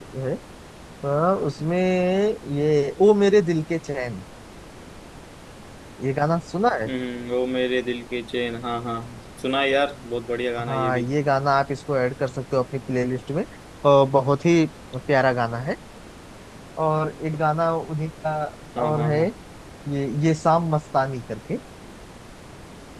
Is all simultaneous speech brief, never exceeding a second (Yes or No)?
Yes